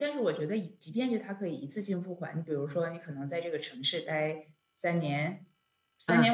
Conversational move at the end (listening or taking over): listening